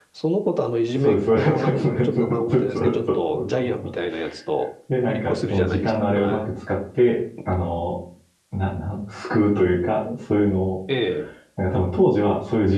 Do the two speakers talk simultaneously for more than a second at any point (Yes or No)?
Yes